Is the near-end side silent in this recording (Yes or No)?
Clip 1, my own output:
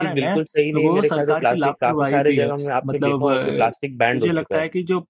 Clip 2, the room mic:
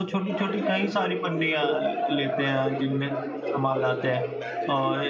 No